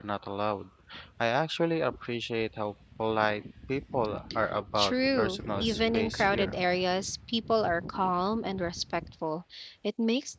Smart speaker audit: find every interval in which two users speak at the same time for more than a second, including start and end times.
4.8-6.6

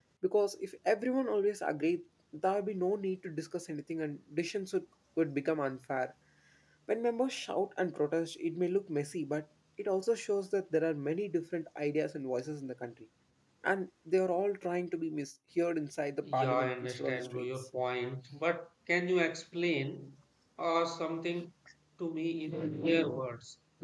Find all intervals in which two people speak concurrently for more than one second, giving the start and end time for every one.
16.2-17.5

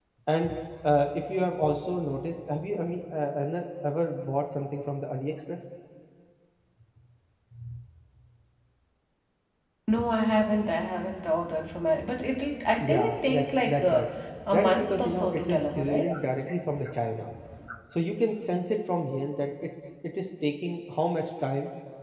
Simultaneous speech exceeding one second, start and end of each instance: 12.8-14.1, 14.5-16.1

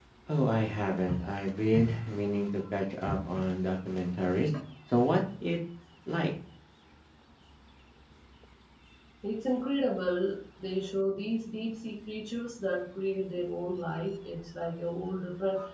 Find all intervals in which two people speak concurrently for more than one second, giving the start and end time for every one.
none

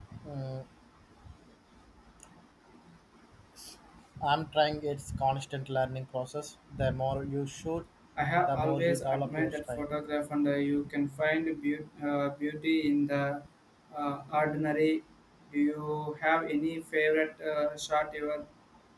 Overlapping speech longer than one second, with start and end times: 8.4-9.9

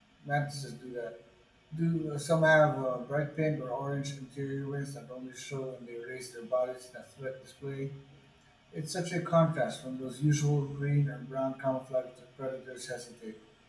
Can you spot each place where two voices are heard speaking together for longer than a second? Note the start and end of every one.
none

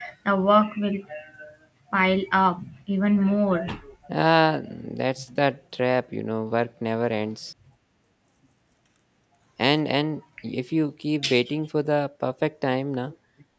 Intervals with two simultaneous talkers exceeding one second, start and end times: none

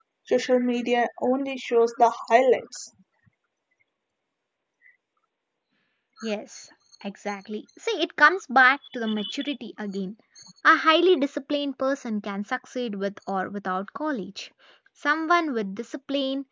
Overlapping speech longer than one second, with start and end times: none

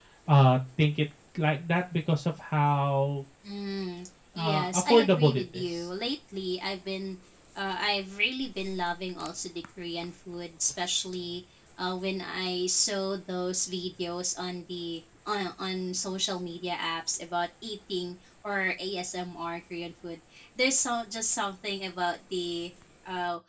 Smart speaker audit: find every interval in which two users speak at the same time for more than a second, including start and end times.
4.3-5.9

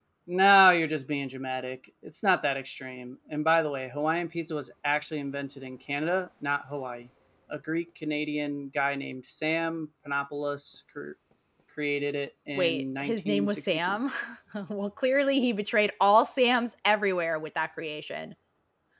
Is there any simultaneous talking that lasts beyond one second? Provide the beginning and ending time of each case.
12.6-14.0

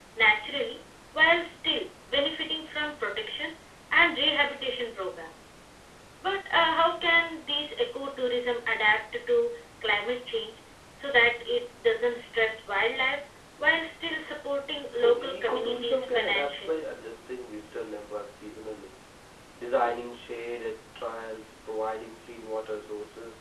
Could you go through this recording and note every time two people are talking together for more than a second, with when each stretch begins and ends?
14.9-16.8

